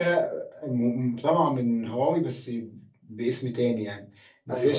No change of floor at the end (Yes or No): Yes